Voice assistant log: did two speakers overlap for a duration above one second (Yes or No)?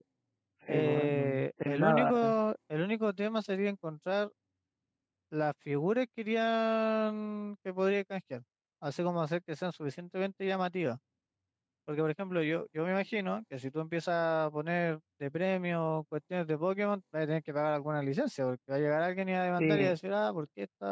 Yes